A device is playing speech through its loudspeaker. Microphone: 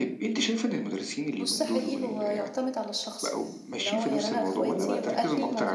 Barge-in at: 1.4 s

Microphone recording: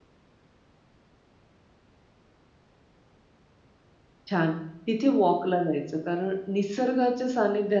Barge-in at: 4.3 s

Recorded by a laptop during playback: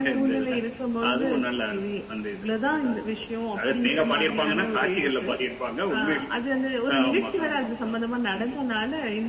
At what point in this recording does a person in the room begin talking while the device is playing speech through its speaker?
none

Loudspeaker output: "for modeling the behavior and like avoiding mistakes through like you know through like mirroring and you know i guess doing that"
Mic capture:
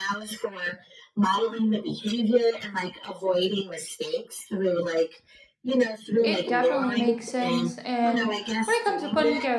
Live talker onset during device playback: 6.2 s

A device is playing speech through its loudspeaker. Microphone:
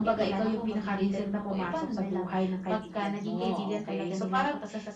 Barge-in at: none

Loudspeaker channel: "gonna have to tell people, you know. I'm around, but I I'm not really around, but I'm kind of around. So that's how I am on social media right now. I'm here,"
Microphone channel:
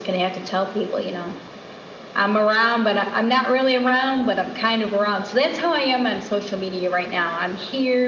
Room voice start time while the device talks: none

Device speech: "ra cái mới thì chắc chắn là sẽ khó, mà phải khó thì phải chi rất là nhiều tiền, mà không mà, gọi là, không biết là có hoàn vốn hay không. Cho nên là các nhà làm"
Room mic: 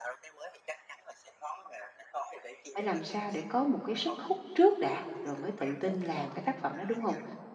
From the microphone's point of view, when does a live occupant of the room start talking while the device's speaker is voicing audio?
2.7 s

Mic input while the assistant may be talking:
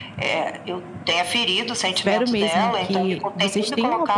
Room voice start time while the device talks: 1.9 s

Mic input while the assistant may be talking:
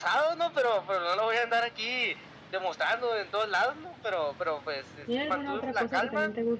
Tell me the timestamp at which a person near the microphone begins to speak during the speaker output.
5.0 s

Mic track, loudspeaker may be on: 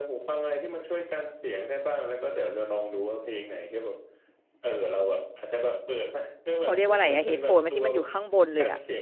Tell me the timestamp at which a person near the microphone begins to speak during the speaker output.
6.6 s

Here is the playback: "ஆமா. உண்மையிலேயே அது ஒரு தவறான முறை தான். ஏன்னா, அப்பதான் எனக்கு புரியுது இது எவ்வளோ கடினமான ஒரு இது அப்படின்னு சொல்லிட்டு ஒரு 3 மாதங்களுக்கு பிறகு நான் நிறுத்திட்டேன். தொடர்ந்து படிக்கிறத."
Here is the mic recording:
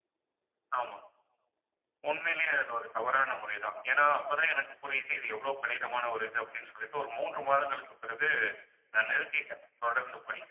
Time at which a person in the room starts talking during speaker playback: none

